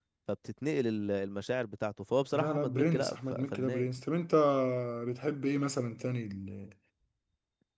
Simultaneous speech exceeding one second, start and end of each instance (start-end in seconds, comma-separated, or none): 2.3-3.9